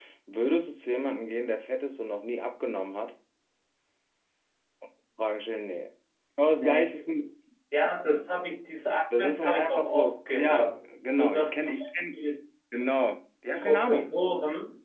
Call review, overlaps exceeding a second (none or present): present